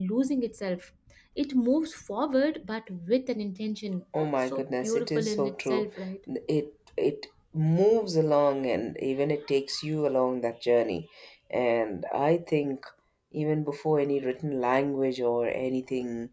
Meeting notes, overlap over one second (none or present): present